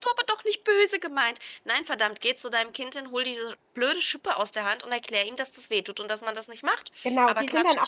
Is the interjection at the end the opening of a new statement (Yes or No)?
Yes